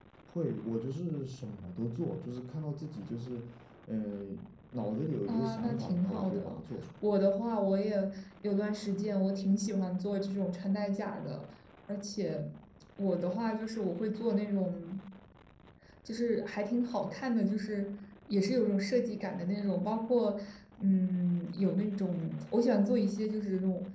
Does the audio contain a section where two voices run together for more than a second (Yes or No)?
Yes